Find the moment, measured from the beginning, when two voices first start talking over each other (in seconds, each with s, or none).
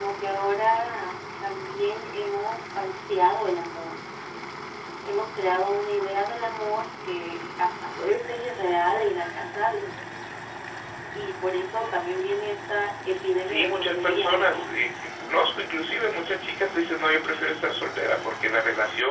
13.4 s